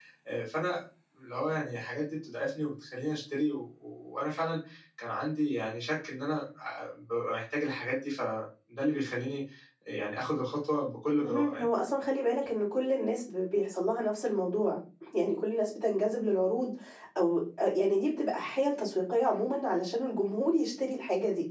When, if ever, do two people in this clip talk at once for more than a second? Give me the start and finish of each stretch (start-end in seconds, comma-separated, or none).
none